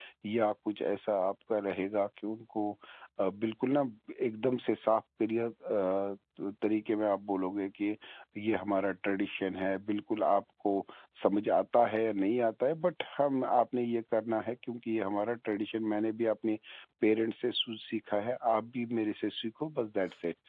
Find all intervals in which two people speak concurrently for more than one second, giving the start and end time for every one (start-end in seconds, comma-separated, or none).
none